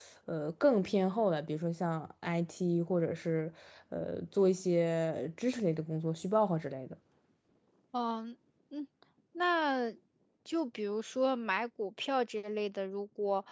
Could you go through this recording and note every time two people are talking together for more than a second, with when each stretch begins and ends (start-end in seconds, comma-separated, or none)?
none